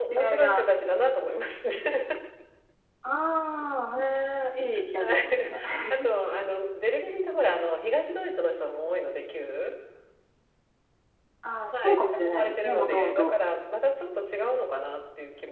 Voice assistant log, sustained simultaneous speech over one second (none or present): present